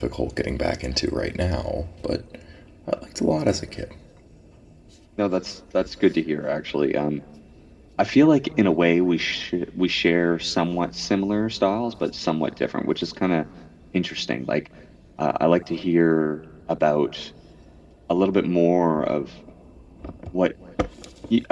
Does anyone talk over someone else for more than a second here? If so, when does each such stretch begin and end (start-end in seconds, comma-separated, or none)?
none